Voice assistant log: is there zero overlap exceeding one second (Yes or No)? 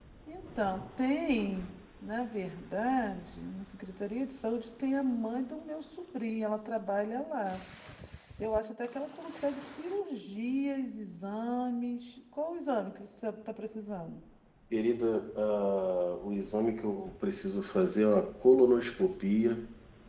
Yes